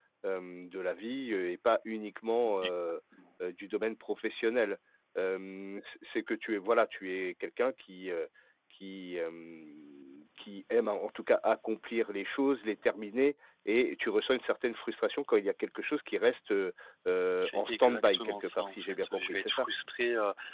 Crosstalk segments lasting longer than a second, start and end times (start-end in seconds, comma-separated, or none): 17.4-19.7